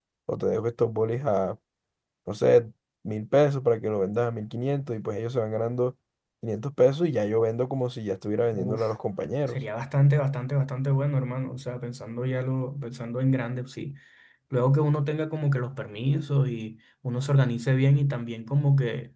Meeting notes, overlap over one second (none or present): none